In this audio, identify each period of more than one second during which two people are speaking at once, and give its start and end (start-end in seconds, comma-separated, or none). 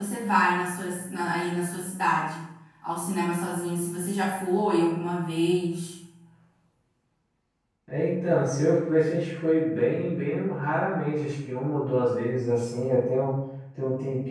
none